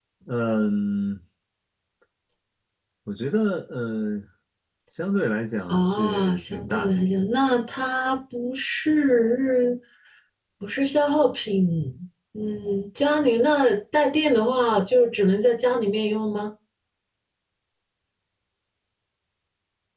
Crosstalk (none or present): present